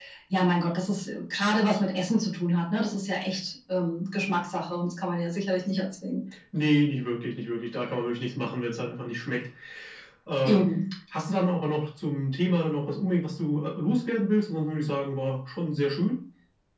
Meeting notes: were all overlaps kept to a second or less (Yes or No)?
Yes